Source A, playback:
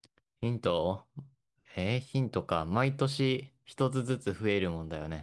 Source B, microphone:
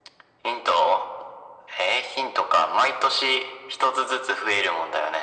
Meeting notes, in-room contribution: none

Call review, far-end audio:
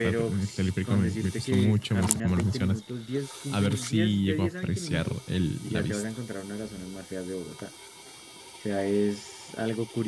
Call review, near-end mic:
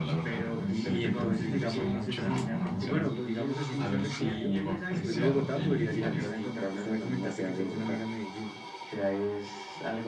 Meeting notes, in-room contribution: present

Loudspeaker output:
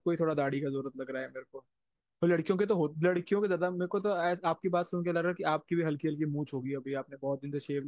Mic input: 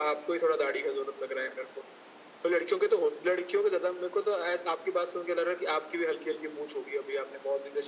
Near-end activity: none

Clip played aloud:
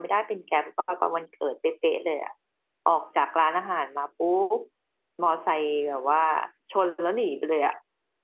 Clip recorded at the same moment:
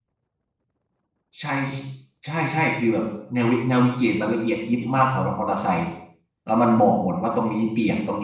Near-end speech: present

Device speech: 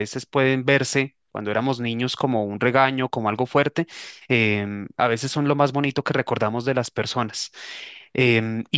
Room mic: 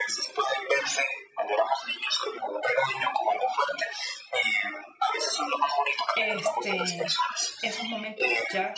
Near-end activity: present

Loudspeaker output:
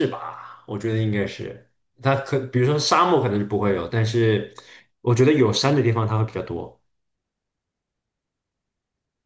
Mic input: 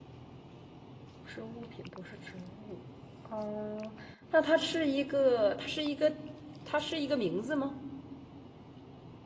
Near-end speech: present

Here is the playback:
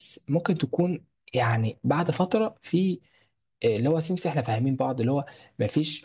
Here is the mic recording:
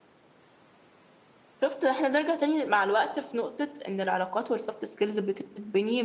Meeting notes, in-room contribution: present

